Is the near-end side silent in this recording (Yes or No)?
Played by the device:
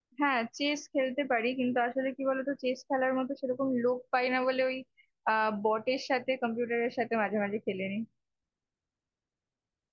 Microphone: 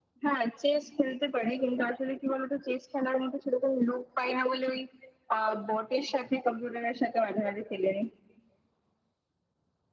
Yes